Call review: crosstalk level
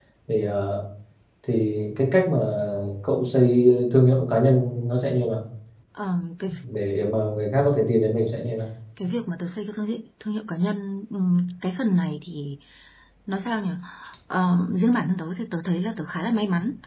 none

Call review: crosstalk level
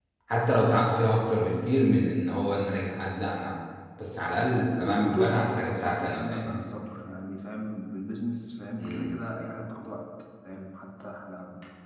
present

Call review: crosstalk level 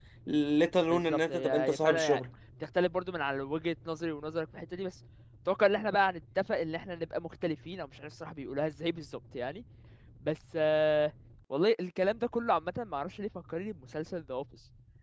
present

